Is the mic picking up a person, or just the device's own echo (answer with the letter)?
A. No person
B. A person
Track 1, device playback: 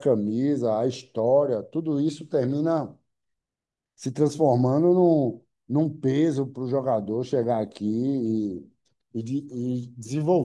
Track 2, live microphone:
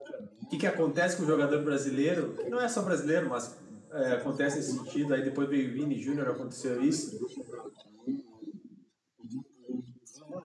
B